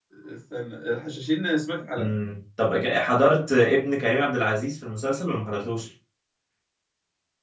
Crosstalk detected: No

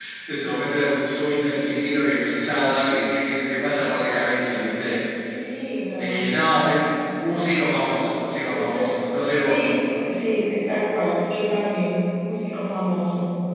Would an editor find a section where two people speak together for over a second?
No

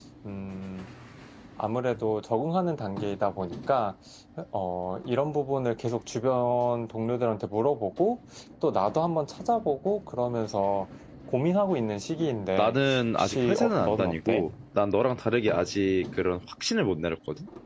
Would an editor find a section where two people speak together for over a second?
Yes, from 12.6 s

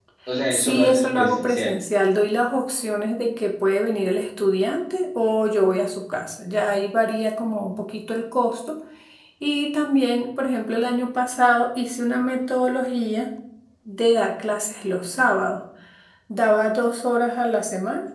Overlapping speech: Yes, from 0.5 s

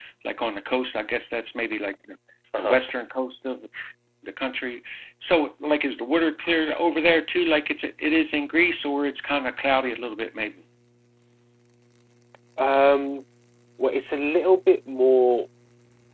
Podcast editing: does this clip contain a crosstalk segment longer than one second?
No

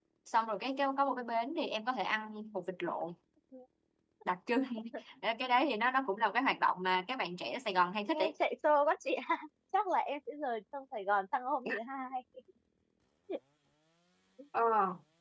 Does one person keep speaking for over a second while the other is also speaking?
No

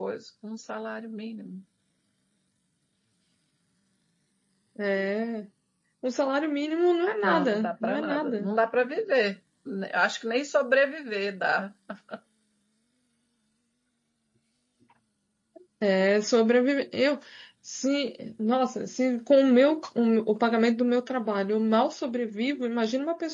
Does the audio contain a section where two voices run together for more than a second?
Yes, from 7.2 s

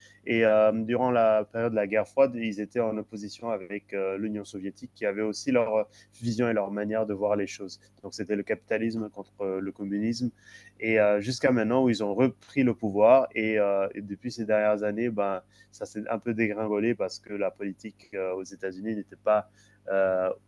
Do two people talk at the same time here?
No

